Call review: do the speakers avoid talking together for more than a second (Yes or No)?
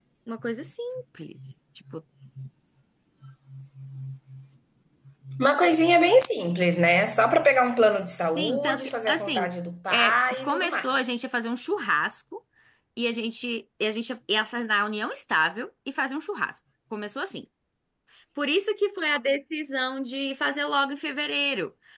No